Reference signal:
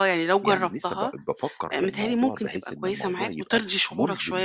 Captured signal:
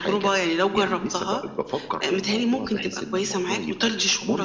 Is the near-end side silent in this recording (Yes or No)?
Yes